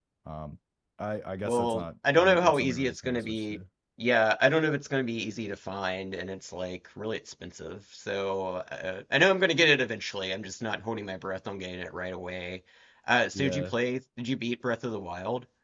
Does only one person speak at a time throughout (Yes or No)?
No